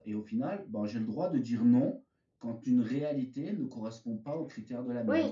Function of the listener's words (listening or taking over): taking over